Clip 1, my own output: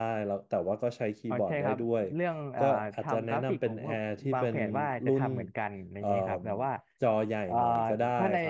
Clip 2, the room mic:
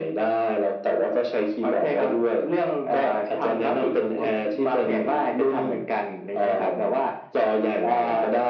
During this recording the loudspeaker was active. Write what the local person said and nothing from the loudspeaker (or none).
none